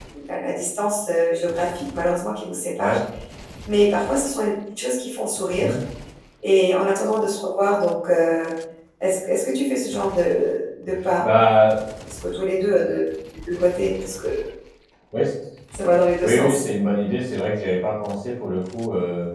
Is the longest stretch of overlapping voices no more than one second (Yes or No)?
Yes